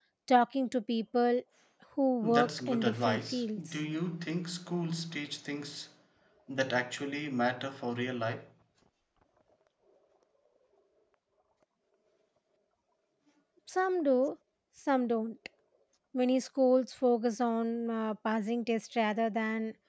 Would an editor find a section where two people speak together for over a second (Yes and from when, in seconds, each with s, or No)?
Yes, from 2.2 s